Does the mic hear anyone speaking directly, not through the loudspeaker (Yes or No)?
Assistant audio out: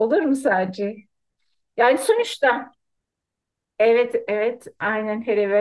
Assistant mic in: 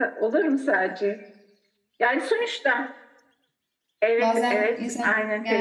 Yes